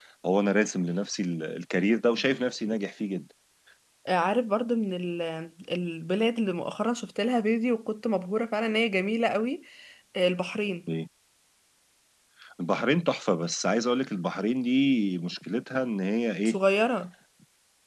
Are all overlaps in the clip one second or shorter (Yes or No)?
Yes